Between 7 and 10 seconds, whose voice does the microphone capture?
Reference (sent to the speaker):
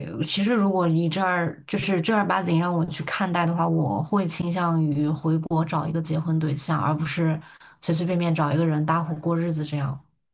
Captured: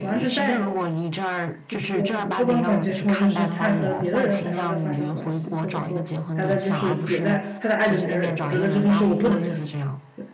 both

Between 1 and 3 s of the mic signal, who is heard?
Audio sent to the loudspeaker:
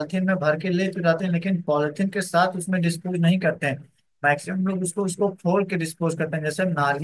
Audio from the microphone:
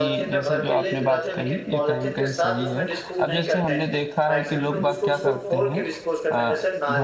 both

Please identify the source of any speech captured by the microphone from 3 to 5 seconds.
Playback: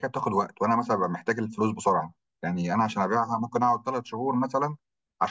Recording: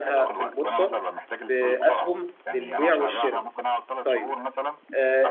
both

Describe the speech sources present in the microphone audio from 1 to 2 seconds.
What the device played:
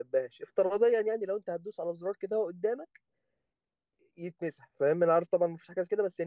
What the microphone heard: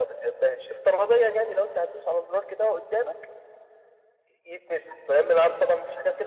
echo only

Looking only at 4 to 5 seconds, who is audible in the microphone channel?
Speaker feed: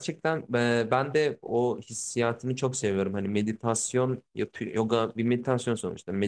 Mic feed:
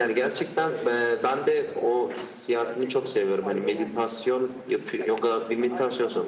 both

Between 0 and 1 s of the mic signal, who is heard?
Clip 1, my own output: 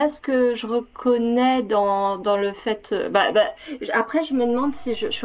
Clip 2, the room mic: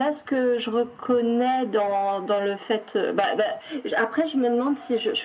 echo only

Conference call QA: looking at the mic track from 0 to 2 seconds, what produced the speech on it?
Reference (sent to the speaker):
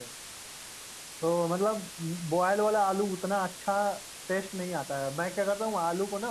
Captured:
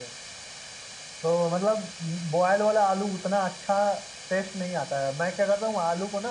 echo only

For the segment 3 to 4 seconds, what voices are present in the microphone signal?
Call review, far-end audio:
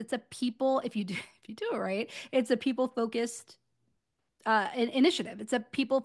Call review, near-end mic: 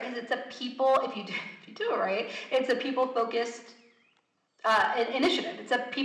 echo only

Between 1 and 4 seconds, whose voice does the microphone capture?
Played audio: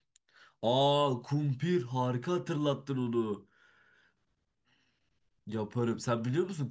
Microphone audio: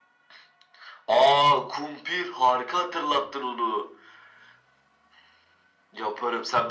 echo only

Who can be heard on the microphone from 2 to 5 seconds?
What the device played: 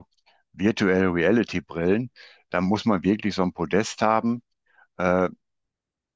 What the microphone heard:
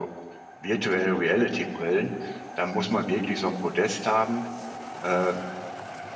echo only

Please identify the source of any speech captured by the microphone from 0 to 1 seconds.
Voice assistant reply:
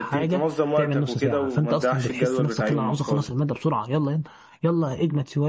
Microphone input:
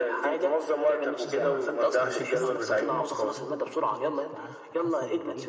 echo only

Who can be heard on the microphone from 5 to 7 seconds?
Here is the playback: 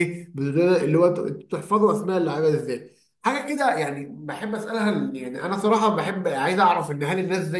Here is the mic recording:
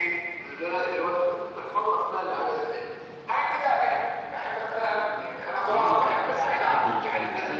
both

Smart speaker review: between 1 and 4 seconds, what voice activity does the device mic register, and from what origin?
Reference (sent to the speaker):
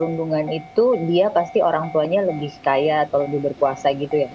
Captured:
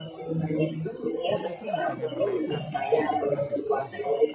both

